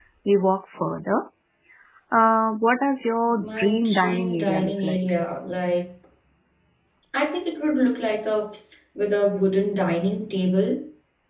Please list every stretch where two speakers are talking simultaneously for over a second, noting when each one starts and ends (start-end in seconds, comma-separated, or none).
3.4-5.0